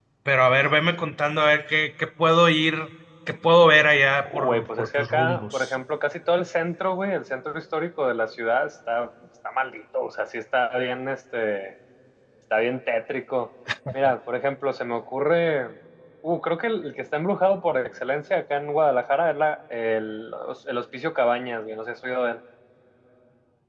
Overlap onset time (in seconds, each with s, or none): 4.2 s